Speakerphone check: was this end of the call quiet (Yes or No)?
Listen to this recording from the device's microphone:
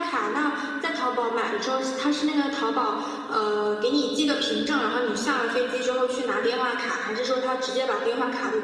Yes